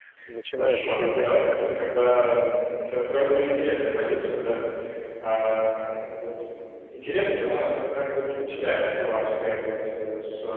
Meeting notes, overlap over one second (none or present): present